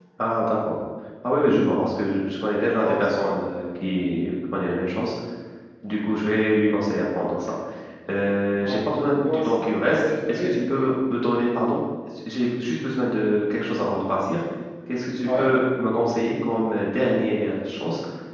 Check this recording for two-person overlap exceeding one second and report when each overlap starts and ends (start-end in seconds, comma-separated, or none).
9.2-10.9